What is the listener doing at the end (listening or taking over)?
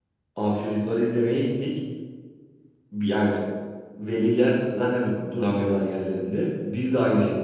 listening